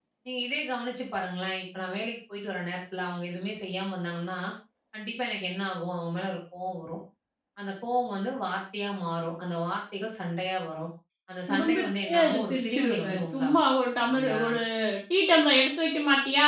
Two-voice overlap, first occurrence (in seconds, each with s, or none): 11.5 s